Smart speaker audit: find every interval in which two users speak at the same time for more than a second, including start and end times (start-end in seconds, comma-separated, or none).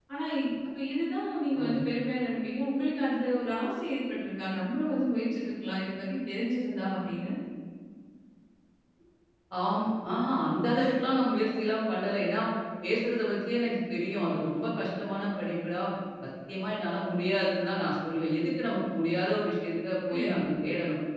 none